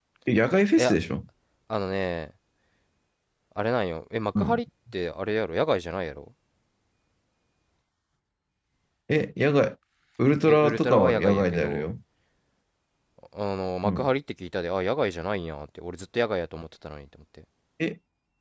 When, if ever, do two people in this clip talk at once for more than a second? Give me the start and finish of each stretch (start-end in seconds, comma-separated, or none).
10.5-11.9